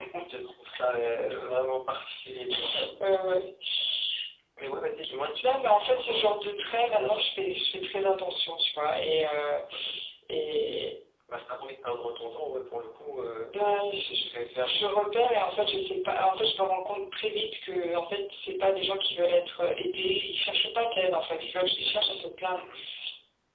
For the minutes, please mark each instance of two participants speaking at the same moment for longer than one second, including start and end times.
5.4-7.2

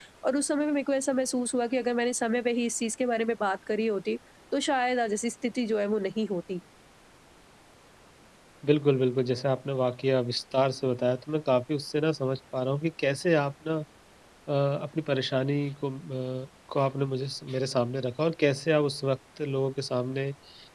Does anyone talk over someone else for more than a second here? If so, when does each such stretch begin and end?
none

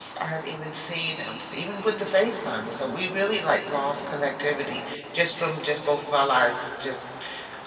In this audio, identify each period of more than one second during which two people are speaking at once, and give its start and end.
none

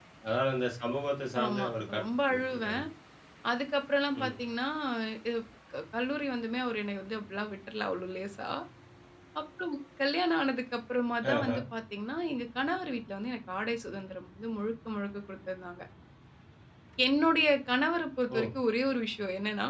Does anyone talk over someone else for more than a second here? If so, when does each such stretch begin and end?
1.4-2.8

